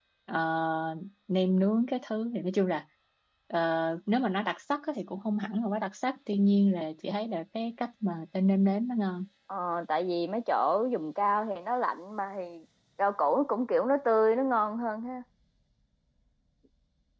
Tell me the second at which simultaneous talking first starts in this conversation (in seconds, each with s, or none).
none